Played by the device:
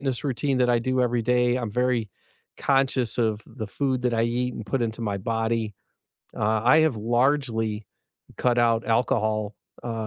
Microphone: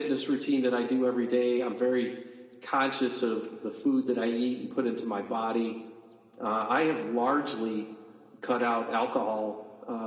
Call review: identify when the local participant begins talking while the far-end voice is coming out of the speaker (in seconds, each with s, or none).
none